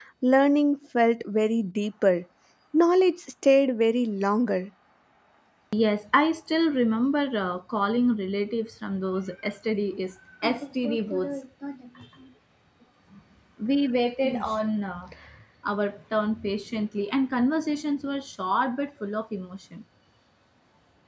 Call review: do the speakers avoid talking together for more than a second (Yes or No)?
Yes